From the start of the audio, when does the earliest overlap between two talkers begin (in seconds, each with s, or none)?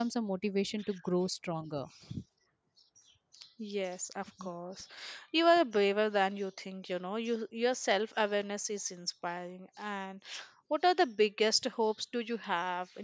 none